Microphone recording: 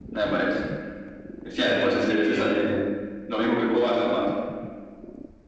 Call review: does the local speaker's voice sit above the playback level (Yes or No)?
No